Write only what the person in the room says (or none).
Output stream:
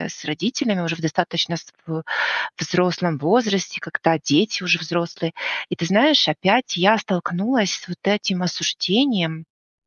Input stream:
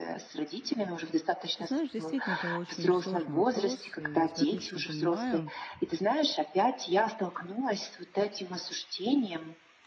Ты знаешь, действительно, это очень сложный вопрос, и я тебя отлично понимаю.